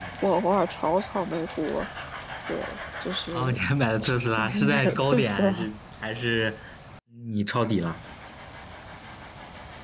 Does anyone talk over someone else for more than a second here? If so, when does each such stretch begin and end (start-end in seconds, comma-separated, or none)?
4.4-5.7